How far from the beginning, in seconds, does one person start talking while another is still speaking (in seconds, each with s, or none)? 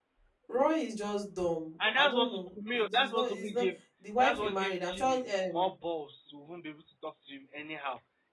1.8 s